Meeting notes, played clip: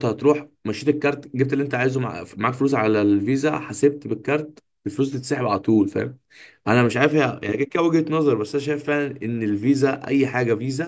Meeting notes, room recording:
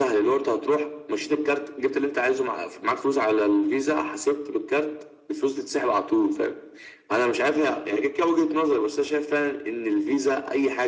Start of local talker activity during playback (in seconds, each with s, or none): none